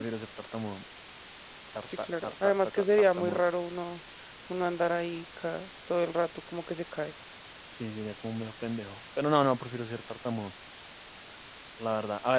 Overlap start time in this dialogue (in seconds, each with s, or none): 2.0 s